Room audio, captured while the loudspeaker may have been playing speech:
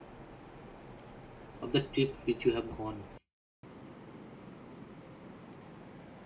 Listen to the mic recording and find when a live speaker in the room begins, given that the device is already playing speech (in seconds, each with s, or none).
1.6 s